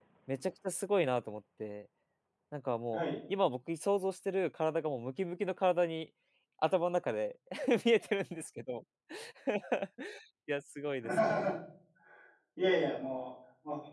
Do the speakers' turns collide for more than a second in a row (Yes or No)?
No